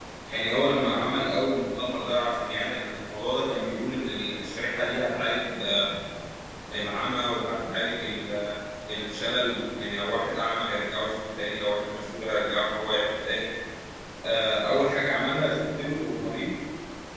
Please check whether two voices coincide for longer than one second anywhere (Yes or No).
No